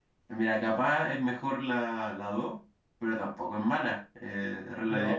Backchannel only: No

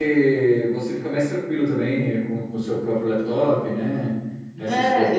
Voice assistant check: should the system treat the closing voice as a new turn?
Yes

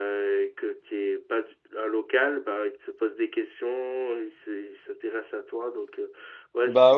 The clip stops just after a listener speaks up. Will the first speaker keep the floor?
No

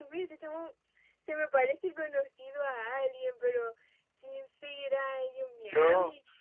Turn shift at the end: No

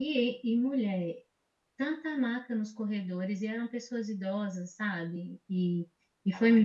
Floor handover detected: No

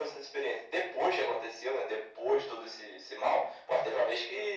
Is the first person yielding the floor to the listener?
No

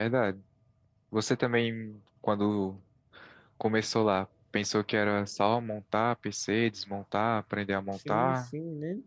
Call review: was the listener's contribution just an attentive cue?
No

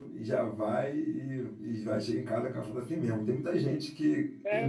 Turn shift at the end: No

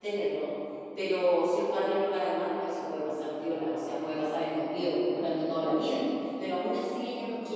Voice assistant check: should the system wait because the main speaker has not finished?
Yes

